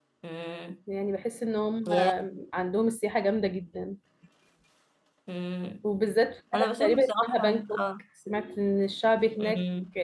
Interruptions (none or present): present